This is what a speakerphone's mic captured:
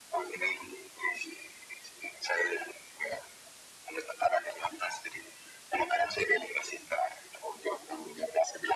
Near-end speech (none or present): none